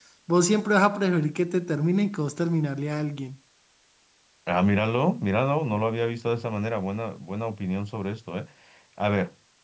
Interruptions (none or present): none